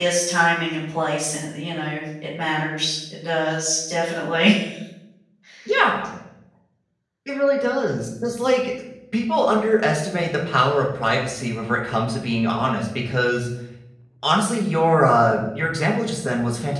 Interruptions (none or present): none